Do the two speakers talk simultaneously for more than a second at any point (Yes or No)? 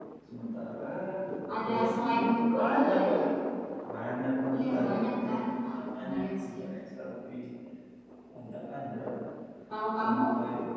Yes